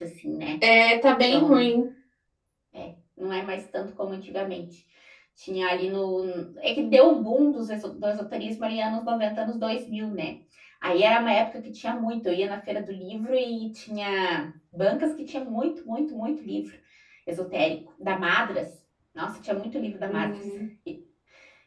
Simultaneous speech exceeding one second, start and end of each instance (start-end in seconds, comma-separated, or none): none